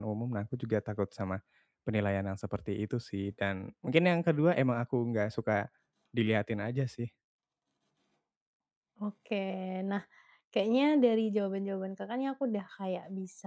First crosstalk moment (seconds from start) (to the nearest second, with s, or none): none